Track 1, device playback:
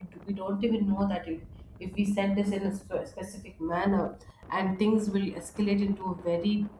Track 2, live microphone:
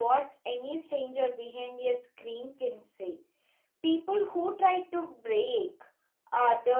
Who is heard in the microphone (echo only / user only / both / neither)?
user only